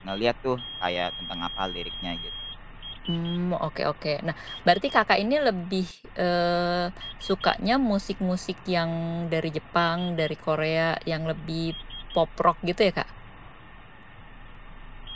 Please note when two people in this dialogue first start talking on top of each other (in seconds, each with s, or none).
none